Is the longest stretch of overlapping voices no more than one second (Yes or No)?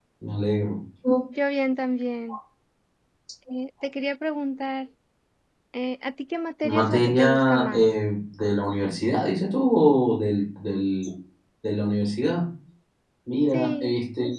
No